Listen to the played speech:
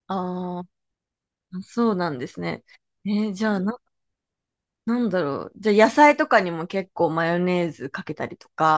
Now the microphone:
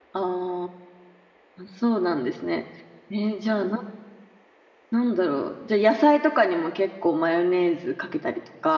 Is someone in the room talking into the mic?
No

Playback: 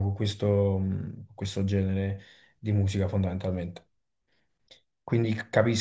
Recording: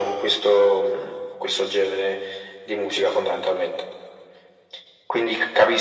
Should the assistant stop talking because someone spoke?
No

